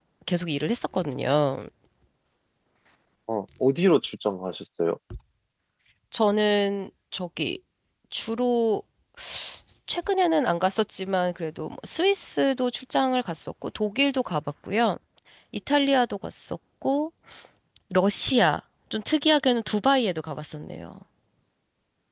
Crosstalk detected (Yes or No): No